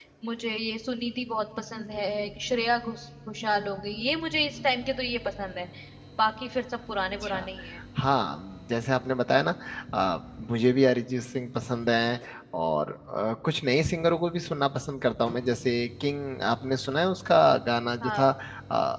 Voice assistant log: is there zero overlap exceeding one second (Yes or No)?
Yes